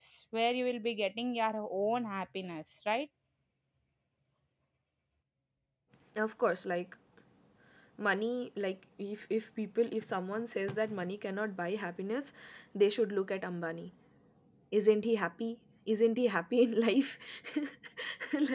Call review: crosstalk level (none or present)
none